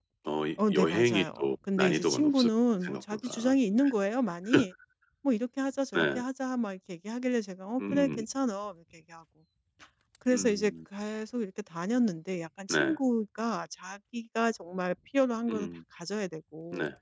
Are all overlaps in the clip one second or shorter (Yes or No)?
No